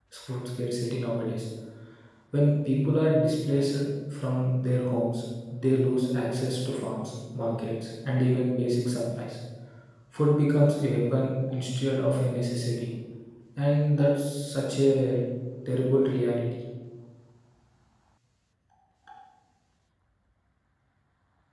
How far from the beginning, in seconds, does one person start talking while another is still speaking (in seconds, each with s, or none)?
none